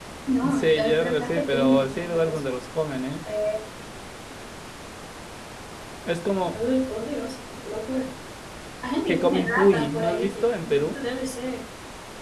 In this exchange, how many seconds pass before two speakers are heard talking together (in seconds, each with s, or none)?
0.5 s